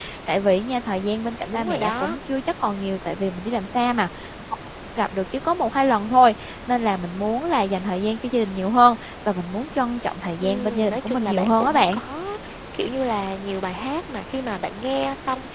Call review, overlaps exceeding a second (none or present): present